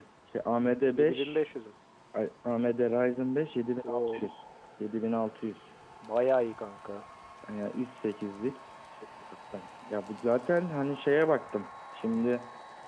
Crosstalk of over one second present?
No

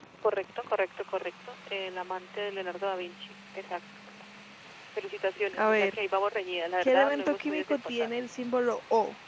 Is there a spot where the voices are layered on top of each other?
Yes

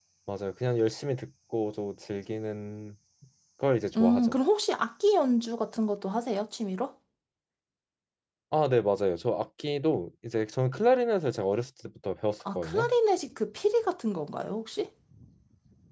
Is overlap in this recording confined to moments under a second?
Yes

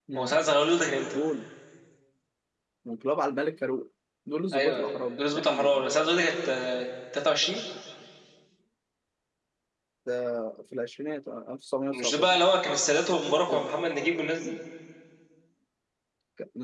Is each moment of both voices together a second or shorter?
No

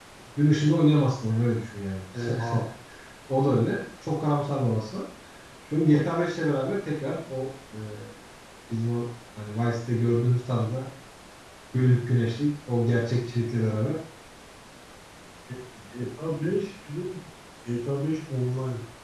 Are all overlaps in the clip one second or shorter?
Yes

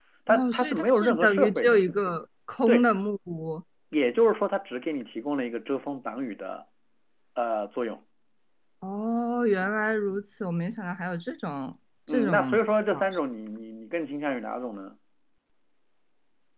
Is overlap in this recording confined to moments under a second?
No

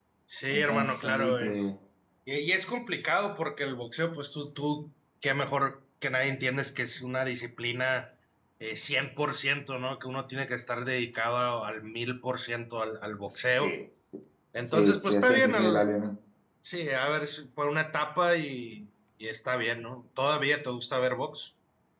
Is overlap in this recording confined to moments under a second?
No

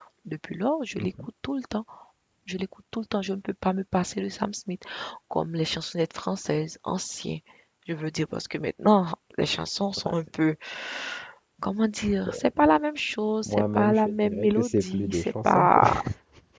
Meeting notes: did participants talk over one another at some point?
Yes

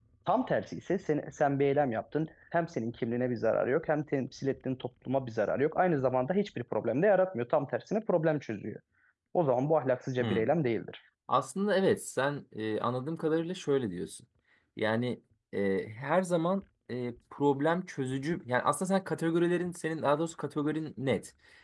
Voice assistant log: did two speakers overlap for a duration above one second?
No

